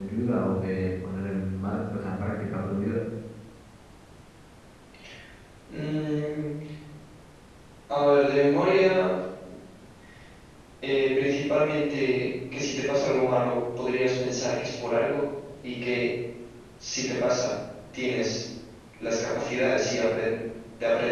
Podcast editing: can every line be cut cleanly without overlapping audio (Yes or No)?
Yes